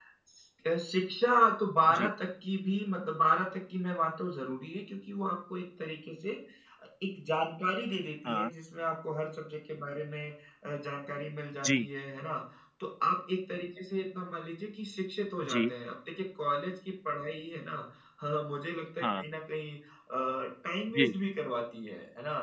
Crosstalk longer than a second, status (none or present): none